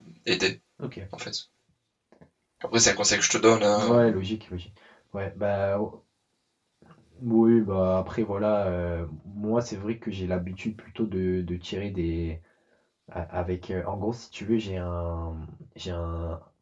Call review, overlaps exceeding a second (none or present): none